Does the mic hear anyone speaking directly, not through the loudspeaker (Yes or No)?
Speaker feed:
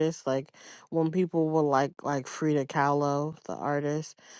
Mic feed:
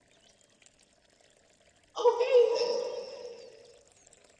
Yes